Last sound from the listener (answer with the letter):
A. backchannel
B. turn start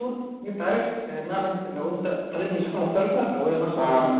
A